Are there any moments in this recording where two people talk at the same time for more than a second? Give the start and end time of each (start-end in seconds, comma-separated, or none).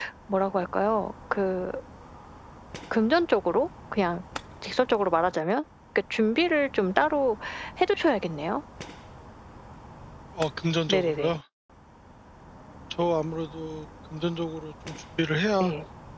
none